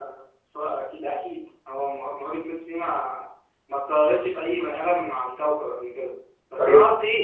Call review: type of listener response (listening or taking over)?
listening